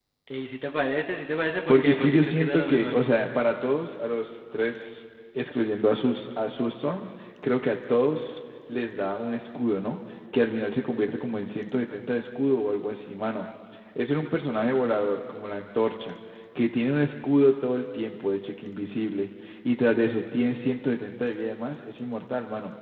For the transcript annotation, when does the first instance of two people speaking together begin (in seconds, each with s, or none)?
1.7 s